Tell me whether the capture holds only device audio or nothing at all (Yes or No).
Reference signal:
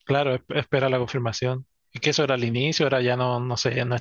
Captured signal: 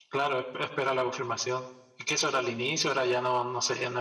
Yes